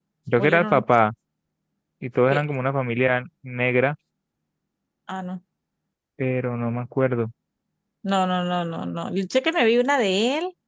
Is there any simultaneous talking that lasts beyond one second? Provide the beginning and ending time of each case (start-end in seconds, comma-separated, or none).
none